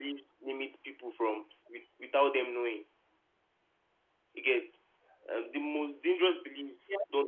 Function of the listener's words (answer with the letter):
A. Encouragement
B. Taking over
A